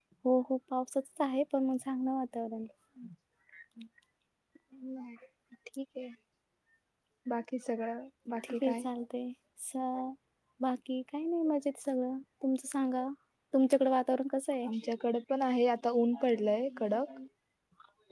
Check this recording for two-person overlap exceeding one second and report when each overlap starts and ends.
none

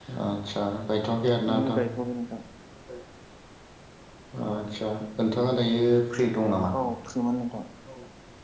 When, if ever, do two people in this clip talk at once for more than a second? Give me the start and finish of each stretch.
none

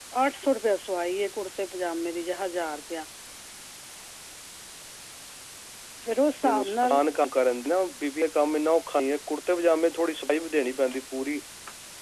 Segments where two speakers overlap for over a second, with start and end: none

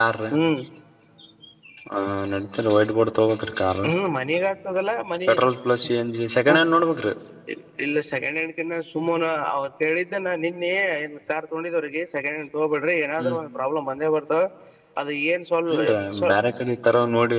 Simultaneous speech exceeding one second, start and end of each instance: none

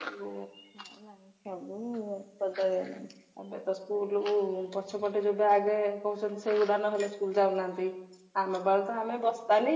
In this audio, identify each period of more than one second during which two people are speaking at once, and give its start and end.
none

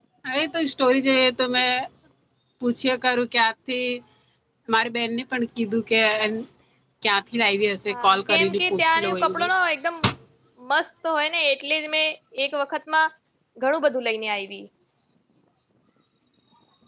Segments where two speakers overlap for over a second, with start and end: 7.9-9.4

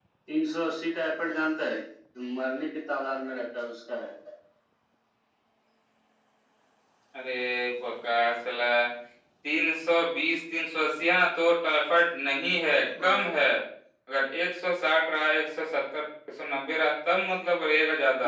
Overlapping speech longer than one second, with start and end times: none

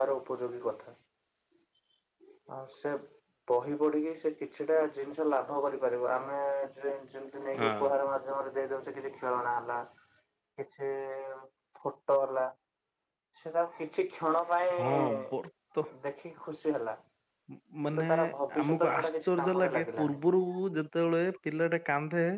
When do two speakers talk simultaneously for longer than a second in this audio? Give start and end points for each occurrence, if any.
18.6-20.2

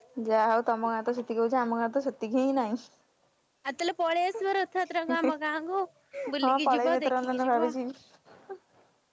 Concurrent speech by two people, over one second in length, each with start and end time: 6.4-7.7

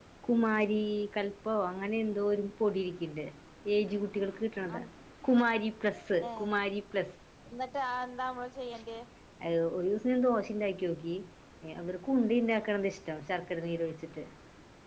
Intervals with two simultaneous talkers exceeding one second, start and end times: none

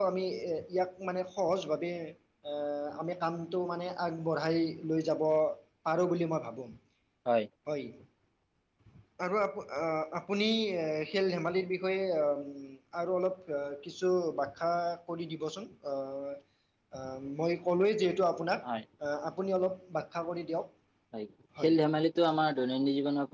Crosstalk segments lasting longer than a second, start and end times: none

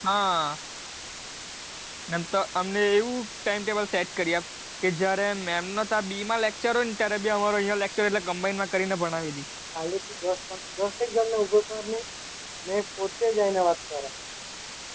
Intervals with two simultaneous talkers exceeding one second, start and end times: none

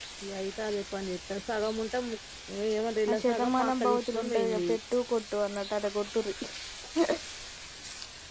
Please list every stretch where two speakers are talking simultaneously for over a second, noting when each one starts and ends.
3.1-4.7

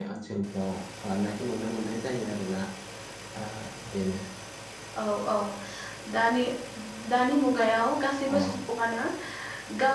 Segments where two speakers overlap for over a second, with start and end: none

